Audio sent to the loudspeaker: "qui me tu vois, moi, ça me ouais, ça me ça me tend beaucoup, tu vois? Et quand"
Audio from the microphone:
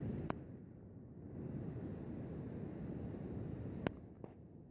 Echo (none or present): none